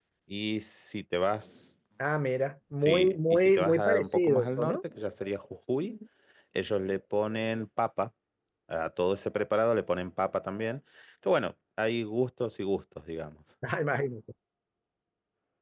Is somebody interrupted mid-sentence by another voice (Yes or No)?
Yes